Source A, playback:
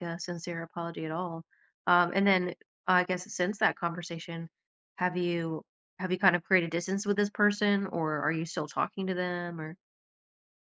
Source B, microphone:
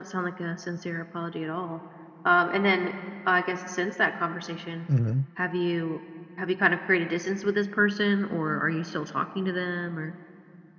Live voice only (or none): Mhm.